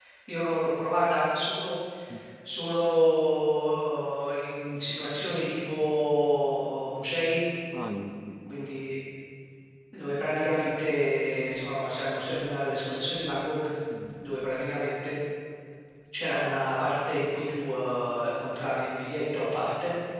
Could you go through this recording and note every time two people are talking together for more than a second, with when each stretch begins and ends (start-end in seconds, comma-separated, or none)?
none